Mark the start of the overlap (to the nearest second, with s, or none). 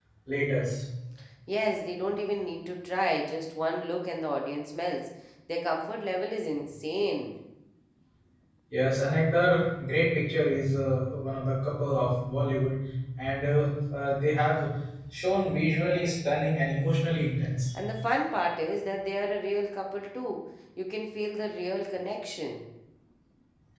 none